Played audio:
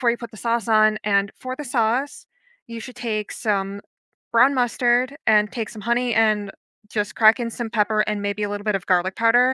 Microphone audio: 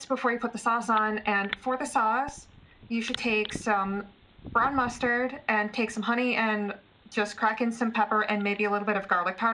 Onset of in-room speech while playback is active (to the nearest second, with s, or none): none